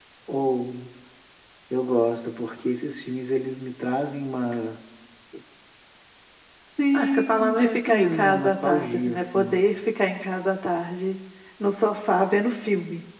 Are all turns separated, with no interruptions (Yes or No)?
No